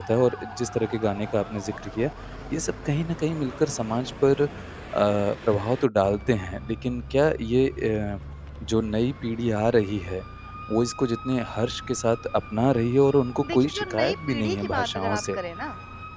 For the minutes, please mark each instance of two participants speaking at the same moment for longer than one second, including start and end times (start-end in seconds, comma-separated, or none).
13.5-15.4